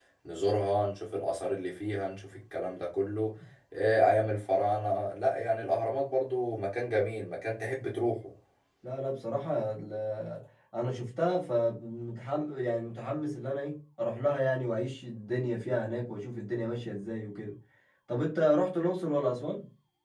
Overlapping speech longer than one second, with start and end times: none

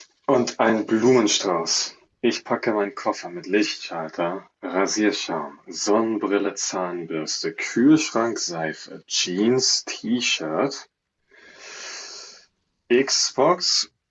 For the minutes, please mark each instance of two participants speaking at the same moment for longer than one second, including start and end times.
none

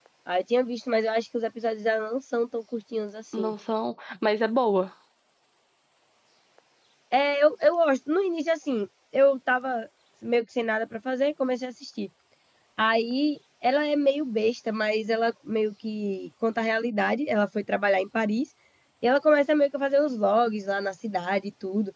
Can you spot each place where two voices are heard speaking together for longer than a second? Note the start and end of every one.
none

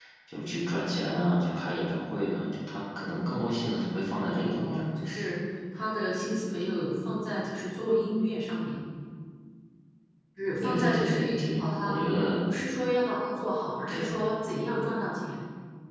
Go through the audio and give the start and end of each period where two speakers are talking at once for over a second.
10.6-12.0

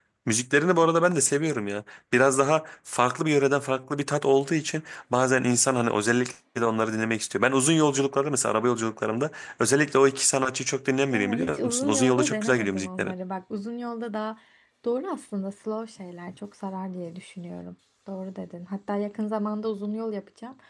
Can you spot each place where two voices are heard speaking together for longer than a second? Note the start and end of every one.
11.1-13.1

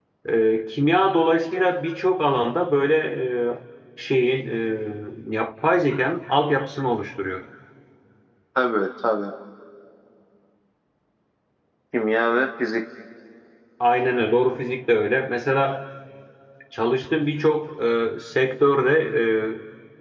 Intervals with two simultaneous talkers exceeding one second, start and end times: none

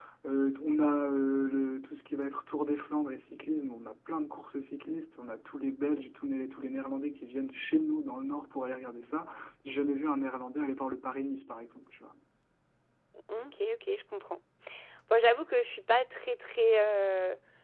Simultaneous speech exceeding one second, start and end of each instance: none

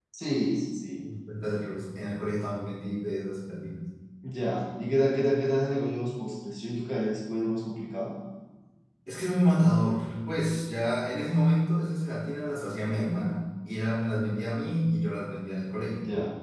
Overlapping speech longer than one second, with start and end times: none

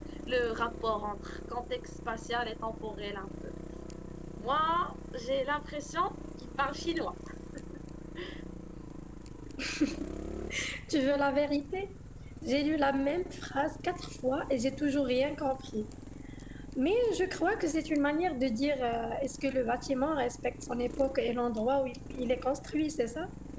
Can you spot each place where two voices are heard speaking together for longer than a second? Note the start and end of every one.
none

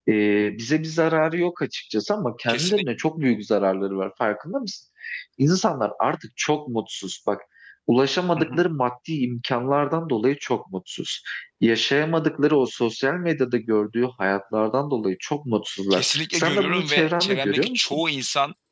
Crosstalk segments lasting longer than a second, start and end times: 15.9-18.0

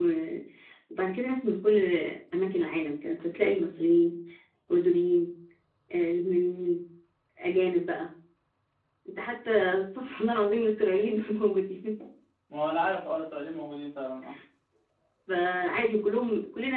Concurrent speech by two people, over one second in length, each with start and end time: none

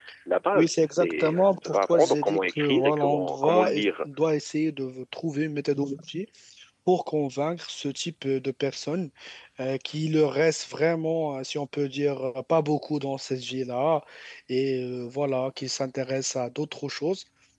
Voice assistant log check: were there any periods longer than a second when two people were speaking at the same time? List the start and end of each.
0.5-3.7

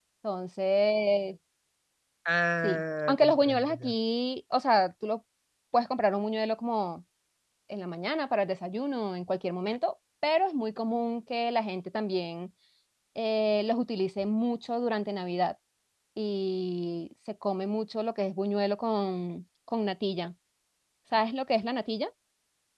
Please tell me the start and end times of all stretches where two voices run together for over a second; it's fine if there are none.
2.6-3.9

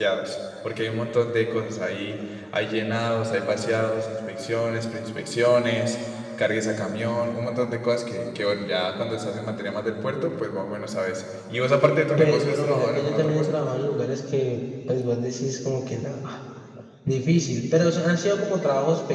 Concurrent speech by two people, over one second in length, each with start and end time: 12.2-13.6

